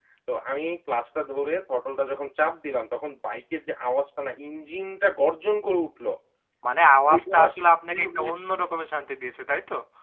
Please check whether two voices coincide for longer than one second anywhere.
No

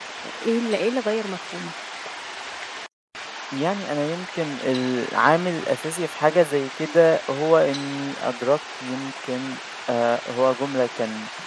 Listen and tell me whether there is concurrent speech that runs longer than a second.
No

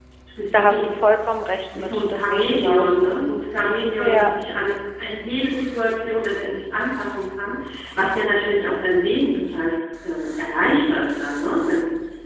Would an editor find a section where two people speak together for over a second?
Yes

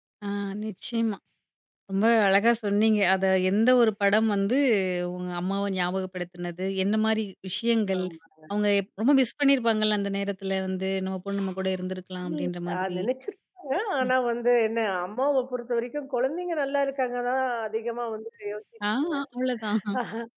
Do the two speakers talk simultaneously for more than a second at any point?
No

